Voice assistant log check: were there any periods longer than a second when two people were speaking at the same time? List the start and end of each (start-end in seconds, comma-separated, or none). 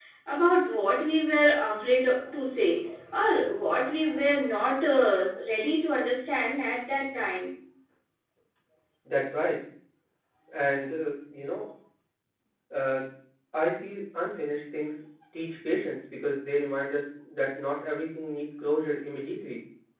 none